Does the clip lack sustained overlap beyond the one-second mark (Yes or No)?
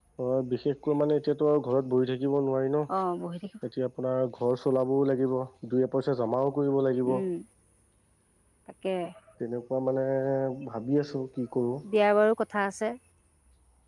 Yes